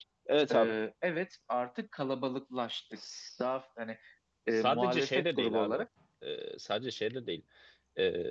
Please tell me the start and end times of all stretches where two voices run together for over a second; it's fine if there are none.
4.5-5.8

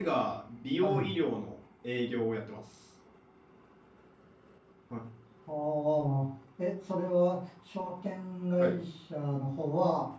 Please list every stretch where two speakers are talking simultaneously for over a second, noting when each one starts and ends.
none

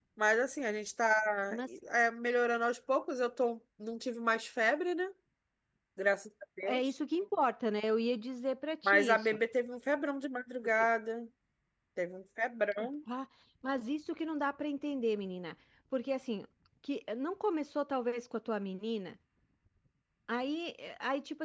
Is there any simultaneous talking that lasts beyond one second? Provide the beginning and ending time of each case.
none

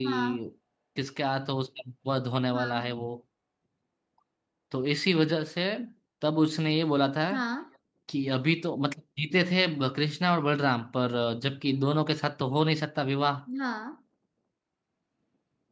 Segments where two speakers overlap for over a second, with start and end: none

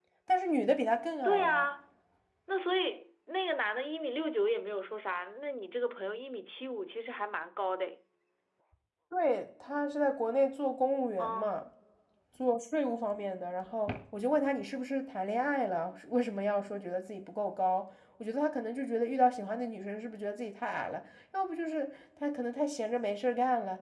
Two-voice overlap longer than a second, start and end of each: none

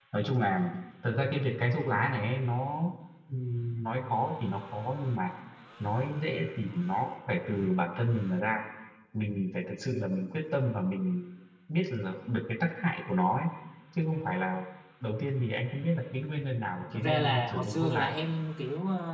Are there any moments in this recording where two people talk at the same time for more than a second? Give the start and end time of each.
16.9-18.1

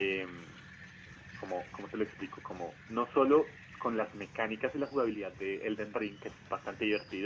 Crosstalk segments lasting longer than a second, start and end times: none

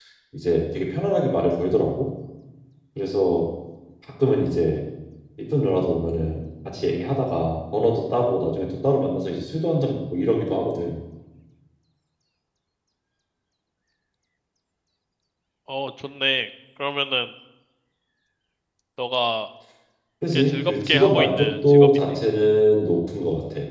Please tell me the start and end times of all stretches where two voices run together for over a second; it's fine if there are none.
20.4-21.9

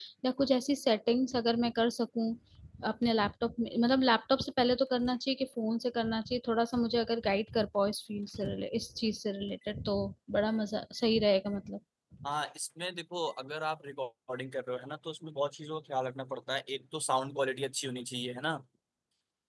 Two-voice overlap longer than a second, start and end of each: none

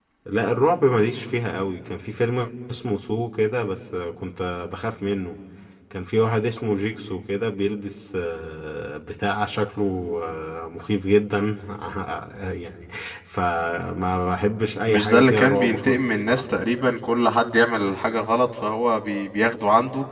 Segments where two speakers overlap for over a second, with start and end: 14.9-16.5

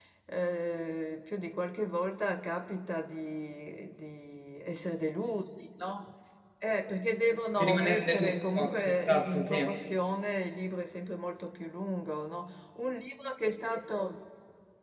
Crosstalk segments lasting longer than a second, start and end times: 7.6-9.7

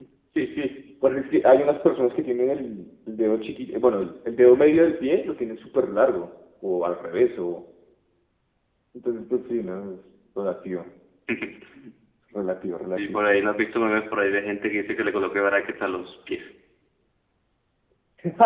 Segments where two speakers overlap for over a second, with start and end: none

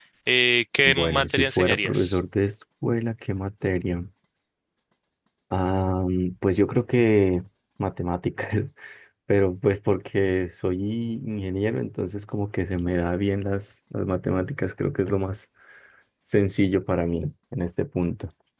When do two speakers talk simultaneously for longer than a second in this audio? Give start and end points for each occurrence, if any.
0.8-2.2

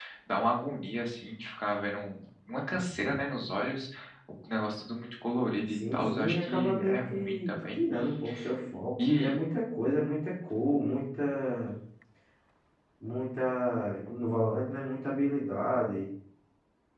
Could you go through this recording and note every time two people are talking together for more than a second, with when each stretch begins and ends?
5.7-7.8

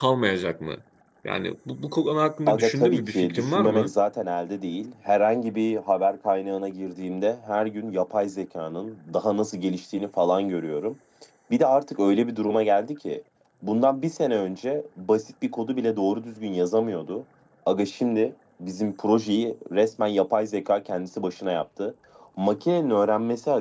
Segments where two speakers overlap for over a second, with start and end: 2.5-3.9

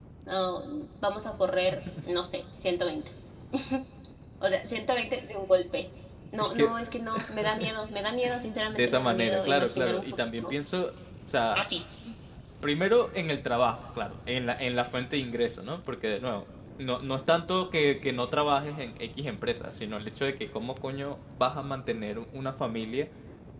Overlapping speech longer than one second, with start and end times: 8.7-10.5

